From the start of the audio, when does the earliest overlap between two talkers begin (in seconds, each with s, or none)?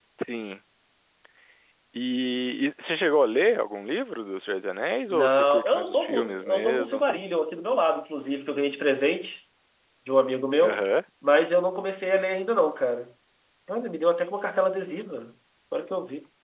5.1 s